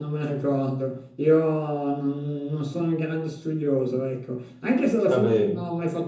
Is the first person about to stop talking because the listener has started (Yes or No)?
No